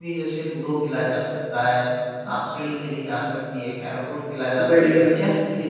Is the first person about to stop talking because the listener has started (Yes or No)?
No